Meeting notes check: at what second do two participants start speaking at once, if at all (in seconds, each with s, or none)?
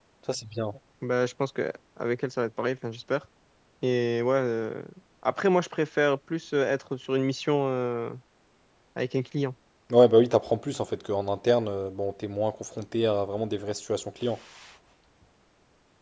none